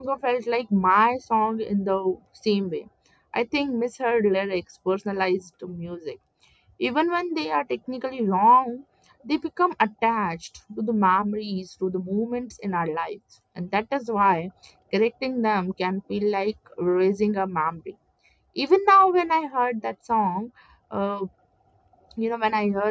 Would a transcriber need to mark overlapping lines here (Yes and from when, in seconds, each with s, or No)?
No